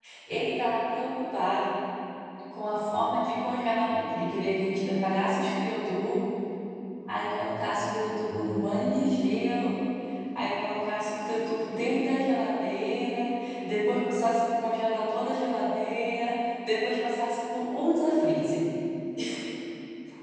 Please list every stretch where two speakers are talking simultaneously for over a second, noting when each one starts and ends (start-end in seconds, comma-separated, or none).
none